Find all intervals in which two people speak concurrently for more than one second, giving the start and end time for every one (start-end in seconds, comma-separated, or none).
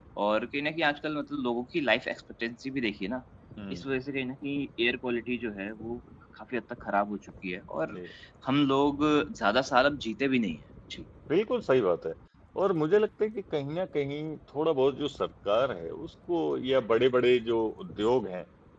none